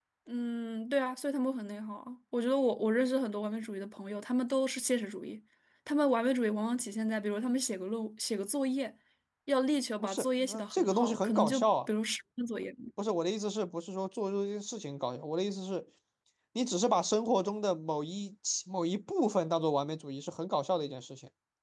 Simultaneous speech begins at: 10.0 s

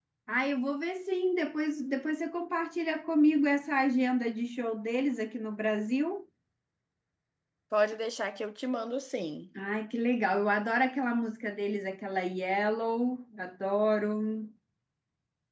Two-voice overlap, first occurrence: none

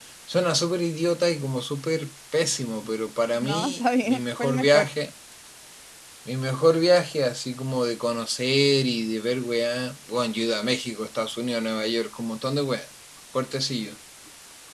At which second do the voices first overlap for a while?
3.4 s

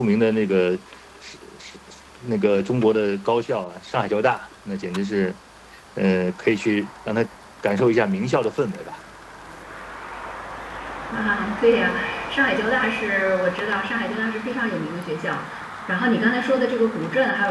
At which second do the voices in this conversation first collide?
none

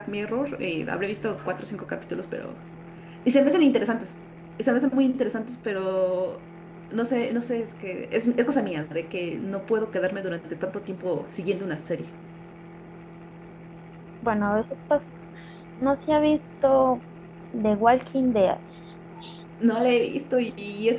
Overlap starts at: none

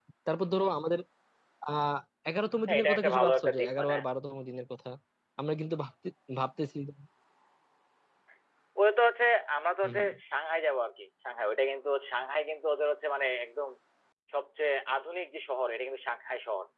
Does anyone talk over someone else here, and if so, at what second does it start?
2.7 s

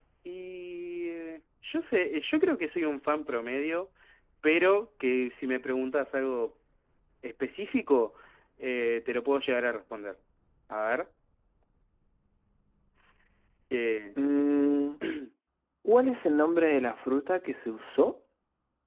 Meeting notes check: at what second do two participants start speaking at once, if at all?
none

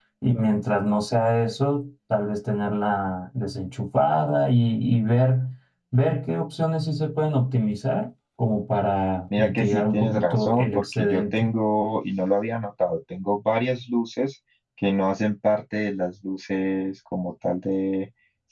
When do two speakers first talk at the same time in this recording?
9.3 s

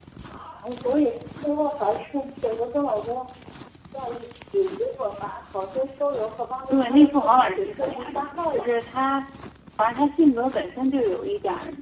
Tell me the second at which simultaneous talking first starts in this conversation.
6.7 s

